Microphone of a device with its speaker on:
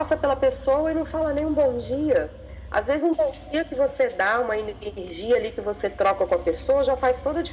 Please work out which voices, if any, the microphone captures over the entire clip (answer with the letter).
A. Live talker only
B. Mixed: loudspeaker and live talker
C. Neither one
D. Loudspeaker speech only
D